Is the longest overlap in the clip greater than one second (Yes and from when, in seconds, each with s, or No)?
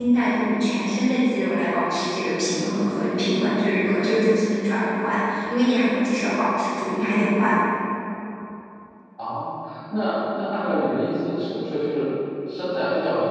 No